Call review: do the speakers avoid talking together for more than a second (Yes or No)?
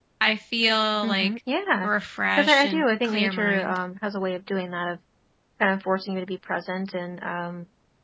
No